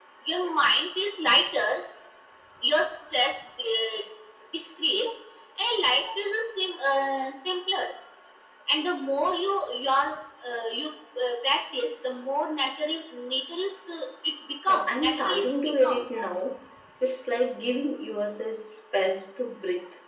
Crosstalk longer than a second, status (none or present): present